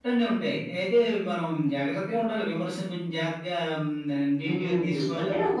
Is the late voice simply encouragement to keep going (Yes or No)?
No